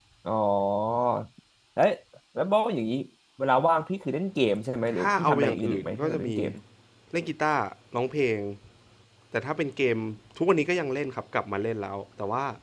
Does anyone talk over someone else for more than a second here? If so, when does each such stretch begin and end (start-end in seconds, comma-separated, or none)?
5.0-6.3